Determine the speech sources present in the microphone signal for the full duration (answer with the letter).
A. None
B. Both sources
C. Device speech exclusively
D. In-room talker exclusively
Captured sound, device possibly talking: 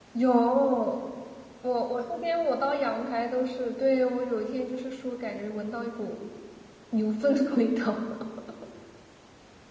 D